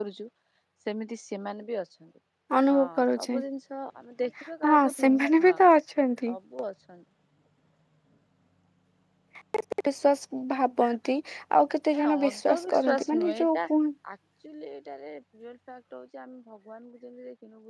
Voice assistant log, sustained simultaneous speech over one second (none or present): present